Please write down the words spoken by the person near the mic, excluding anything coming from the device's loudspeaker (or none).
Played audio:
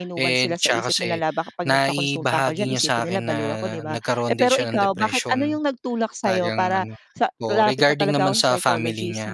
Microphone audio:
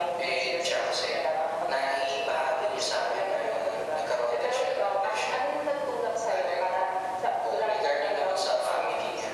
none